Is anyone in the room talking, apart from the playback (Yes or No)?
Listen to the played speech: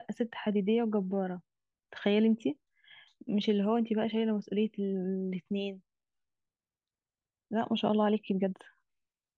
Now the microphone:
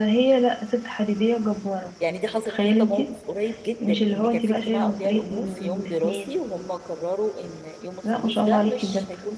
Yes